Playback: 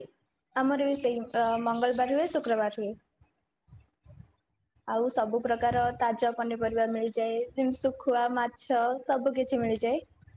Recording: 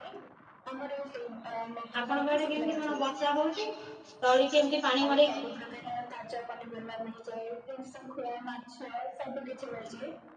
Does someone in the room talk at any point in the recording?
Yes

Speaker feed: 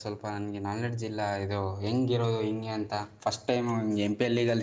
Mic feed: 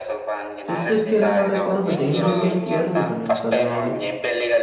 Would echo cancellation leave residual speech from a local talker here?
Yes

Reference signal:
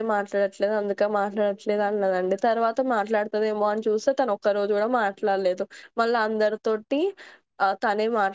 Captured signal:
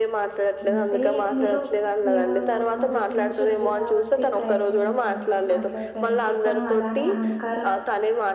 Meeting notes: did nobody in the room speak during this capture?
No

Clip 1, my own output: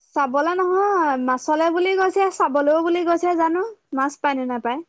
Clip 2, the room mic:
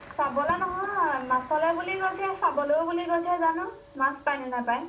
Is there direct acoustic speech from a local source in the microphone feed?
No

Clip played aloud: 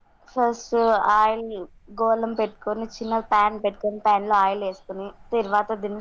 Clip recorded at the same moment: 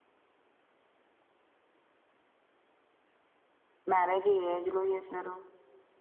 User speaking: Yes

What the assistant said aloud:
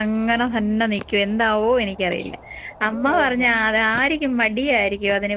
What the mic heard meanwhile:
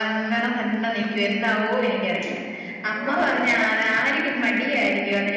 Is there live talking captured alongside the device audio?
Yes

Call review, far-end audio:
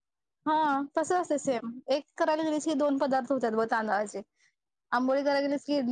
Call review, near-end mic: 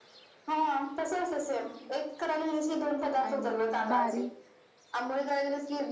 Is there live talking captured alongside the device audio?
Yes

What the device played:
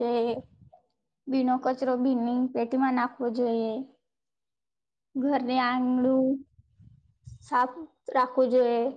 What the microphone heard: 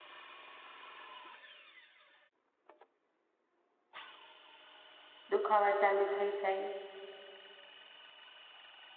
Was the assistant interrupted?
Yes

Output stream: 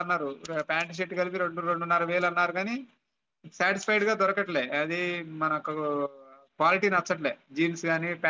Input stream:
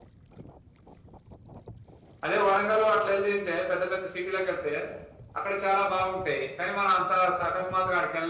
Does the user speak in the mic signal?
Yes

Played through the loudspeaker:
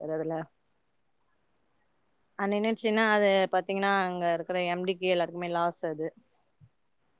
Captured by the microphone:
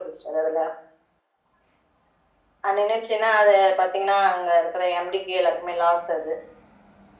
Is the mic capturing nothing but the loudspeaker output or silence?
Yes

